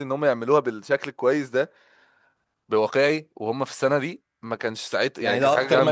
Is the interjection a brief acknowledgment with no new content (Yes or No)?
No